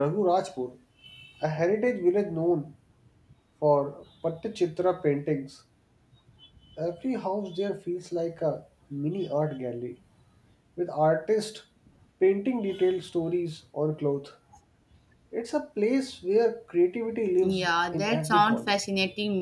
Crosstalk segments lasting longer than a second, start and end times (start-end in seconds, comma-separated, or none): 17.4-18.8